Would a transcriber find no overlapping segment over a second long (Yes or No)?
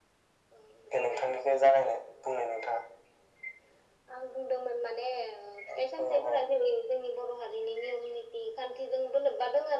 Yes